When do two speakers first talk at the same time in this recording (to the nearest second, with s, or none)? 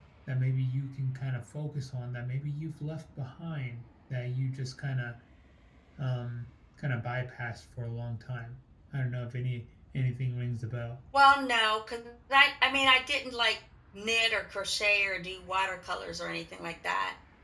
none